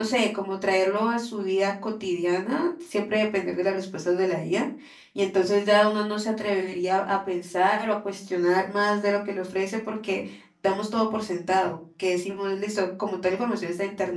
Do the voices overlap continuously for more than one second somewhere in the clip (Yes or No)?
No